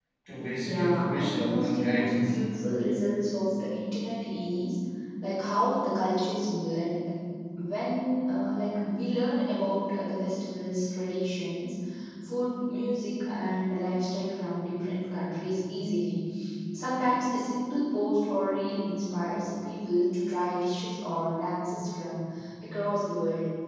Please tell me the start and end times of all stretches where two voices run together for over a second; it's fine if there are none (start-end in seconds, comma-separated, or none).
0.6-2.4